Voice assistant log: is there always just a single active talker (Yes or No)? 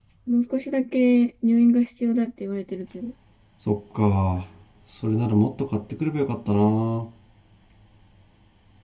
Yes